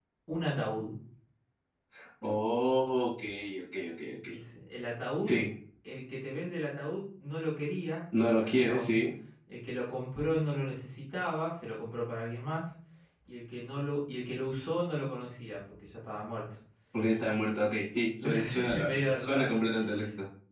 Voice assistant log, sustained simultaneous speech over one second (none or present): present